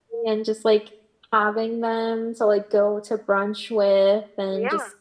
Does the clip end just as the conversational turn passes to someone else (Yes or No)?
No